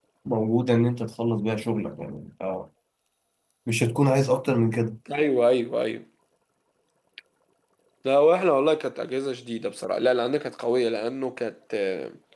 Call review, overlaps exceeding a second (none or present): none